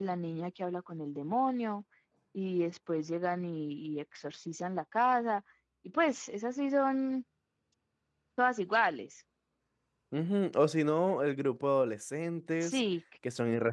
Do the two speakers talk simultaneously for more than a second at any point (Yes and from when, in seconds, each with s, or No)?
No